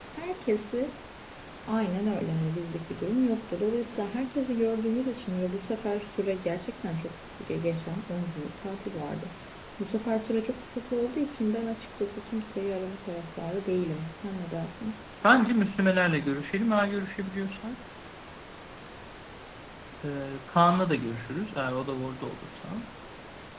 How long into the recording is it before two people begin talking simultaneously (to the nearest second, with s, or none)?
none